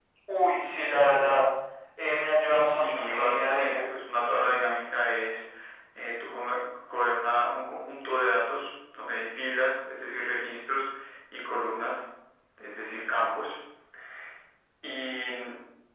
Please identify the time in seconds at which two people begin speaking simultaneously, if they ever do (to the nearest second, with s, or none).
3 s